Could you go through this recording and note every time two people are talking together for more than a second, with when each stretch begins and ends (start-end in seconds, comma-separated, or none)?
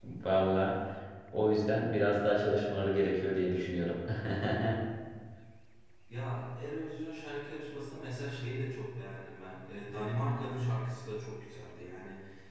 none